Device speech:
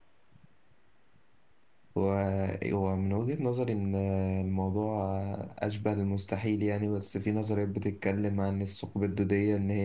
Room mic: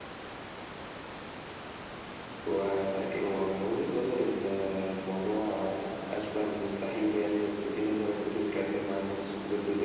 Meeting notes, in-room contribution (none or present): none